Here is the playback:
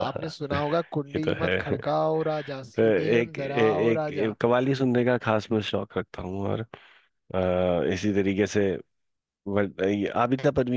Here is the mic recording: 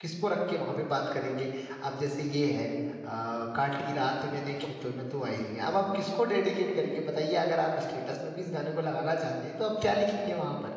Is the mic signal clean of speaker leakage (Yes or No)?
Yes